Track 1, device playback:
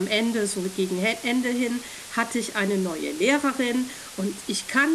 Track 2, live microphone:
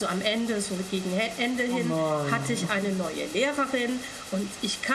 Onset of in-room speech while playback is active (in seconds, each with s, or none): 1.6 s